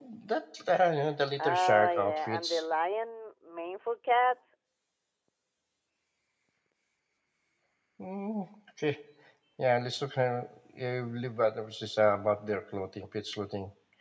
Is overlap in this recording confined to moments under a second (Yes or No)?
No